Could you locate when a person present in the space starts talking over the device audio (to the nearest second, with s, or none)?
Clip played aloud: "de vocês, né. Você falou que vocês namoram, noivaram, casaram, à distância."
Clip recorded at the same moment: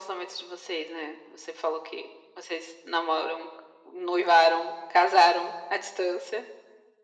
none